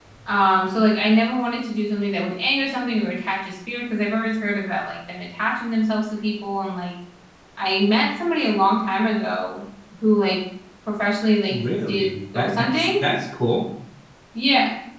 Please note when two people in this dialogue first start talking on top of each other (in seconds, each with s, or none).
11.5 s